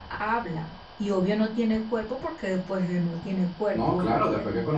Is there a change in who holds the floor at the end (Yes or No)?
Yes